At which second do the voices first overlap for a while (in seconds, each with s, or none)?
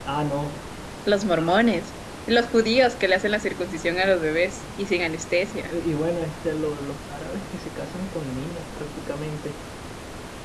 none